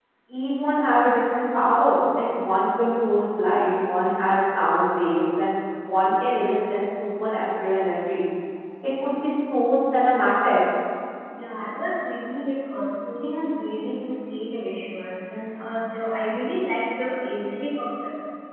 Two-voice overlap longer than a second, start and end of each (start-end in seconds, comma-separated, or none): none